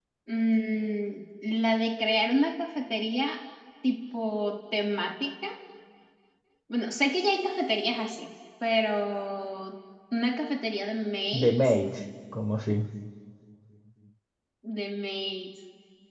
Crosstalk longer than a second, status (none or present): none